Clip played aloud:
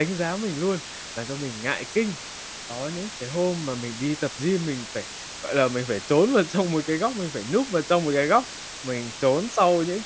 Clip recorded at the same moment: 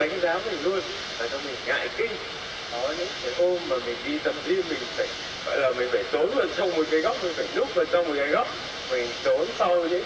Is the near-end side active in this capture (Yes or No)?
No